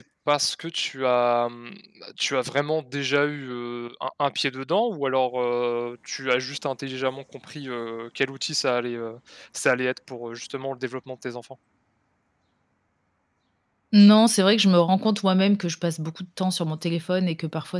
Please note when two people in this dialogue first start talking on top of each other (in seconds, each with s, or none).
none